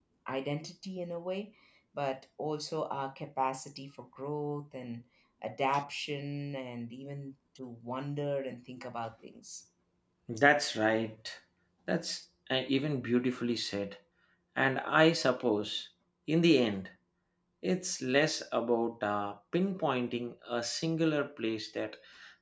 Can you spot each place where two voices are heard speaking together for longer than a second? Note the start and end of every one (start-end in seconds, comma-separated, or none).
none